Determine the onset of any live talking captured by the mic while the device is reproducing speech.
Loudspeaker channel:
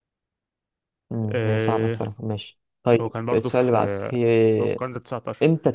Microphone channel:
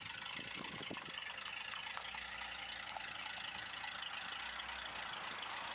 none

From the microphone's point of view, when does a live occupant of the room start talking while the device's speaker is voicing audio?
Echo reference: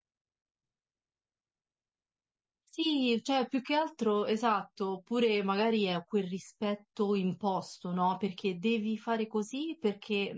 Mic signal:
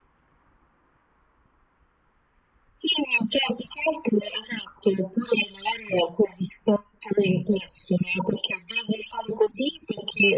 none

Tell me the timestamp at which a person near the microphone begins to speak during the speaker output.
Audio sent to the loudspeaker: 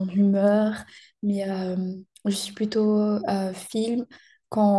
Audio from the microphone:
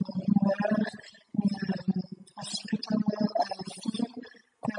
none

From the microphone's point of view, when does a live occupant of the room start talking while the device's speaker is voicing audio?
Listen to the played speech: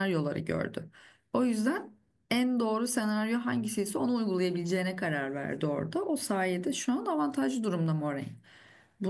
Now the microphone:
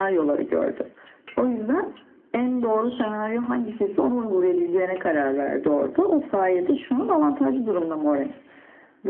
none

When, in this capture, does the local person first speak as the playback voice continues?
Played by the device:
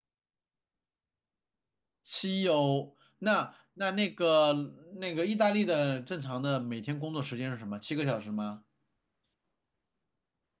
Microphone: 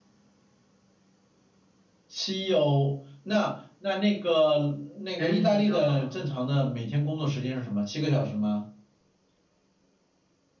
5 s

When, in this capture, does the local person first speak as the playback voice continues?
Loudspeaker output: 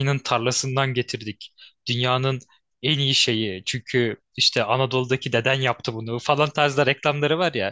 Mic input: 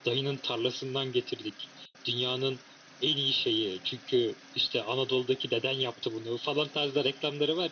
none

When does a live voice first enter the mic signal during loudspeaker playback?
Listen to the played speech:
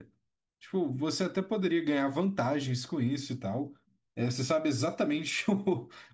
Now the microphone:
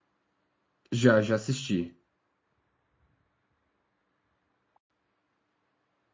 1 s

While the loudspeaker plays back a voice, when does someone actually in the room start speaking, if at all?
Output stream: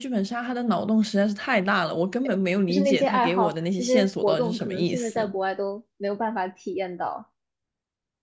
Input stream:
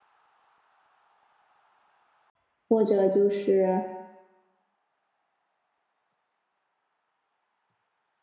3 s

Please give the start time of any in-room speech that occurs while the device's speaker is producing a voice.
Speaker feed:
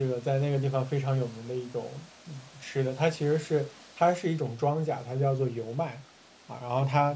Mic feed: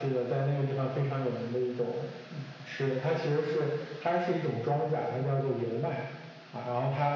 none

